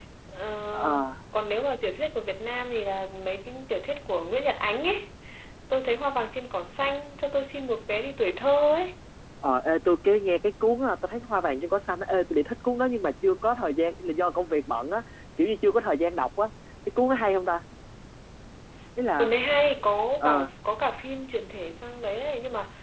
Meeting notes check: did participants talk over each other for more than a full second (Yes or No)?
No